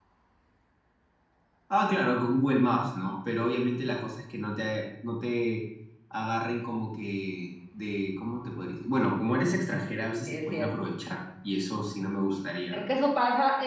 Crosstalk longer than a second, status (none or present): none